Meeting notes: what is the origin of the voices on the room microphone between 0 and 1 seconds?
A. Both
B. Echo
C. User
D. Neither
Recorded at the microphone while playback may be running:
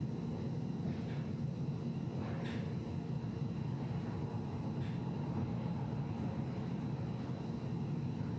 D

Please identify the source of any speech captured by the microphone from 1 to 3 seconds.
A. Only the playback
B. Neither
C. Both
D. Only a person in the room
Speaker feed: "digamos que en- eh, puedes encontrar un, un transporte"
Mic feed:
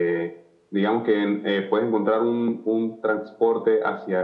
A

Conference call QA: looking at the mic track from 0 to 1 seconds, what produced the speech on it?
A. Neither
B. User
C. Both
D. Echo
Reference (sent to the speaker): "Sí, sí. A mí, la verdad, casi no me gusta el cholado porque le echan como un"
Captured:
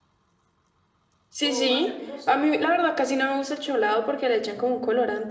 A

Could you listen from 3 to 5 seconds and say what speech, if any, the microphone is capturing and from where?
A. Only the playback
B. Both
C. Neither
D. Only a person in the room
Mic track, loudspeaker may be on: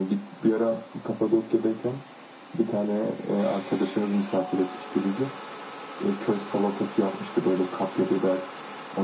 A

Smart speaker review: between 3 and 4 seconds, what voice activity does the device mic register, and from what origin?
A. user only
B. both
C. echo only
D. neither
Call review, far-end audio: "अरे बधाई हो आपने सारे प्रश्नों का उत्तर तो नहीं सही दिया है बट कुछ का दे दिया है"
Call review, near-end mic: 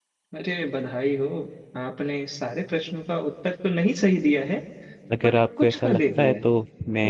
C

